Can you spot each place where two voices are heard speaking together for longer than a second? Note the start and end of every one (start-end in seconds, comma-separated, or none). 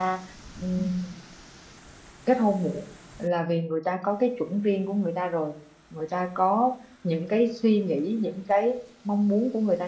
none